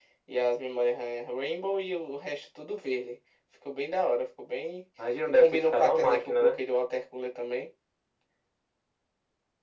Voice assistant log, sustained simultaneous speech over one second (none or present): present